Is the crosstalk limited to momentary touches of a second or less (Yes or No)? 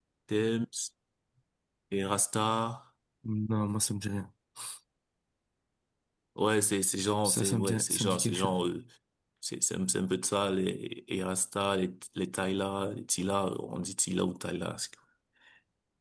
No